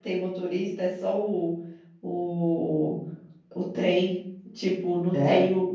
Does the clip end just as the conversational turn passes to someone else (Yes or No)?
No